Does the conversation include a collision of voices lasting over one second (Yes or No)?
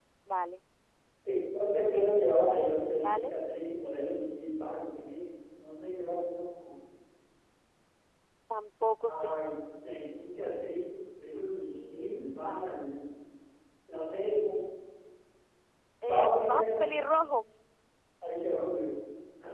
Yes